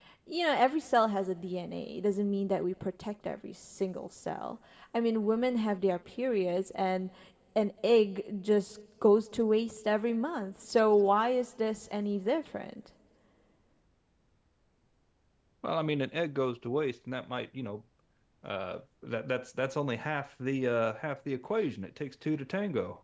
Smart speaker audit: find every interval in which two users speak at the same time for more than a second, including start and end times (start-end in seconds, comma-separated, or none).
none